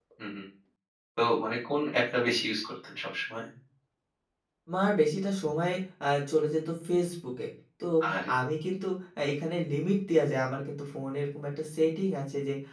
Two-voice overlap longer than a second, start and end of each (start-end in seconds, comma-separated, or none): none